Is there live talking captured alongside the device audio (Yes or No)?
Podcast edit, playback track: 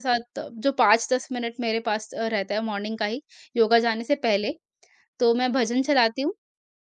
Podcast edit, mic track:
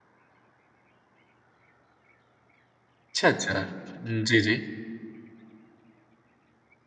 Yes